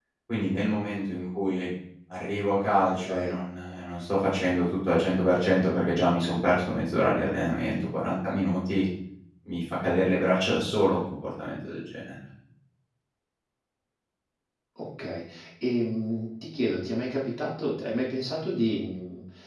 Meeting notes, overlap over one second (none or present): none